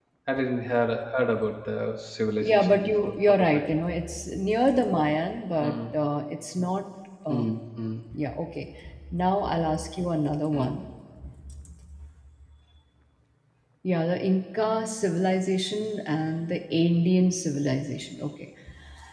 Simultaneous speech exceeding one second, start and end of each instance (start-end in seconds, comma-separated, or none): 2.4-3.6